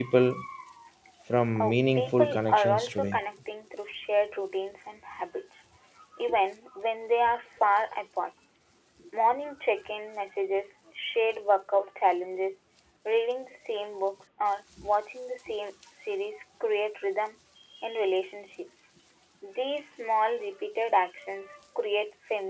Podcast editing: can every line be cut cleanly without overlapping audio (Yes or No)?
No